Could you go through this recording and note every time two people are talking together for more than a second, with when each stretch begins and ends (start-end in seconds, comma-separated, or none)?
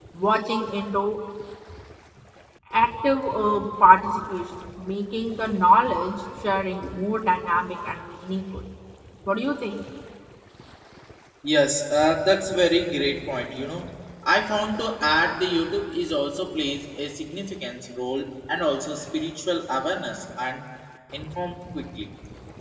none